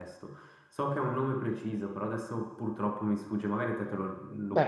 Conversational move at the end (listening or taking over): taking over